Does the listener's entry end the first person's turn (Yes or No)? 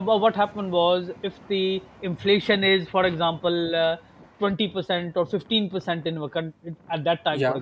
No